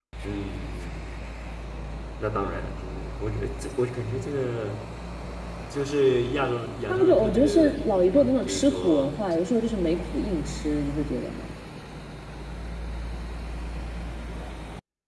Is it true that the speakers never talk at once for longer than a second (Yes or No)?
No